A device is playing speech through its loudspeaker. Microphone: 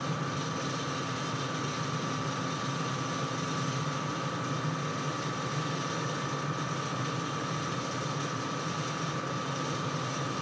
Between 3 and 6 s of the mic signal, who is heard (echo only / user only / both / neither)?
neither